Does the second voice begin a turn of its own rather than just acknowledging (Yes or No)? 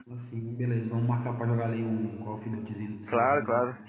Yes